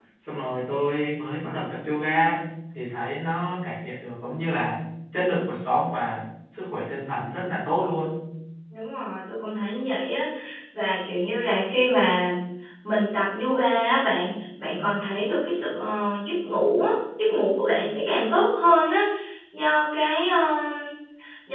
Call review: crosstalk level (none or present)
none